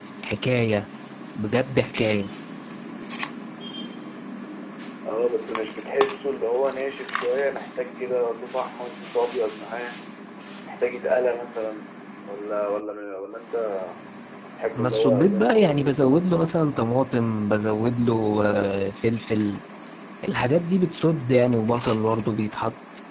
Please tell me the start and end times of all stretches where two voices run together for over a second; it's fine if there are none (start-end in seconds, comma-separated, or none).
14.8-16.0